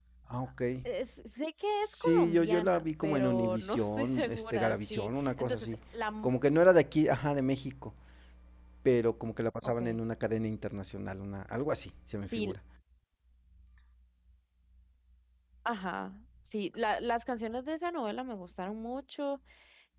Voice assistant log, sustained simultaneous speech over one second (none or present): present